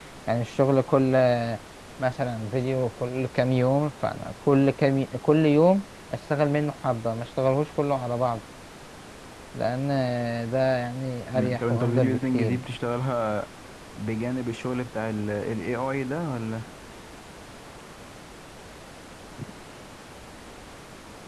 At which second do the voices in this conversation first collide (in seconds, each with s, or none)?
11.3 s